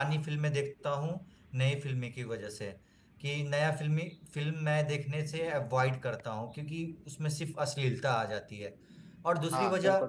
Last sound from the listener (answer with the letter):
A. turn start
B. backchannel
A